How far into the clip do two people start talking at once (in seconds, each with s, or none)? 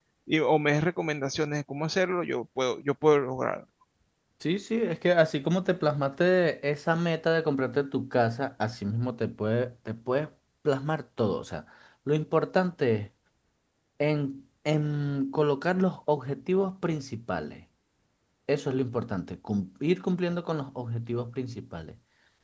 none